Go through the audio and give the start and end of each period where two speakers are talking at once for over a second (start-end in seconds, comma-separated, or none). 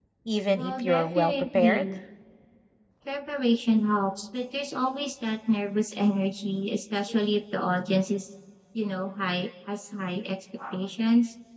0.6-1.8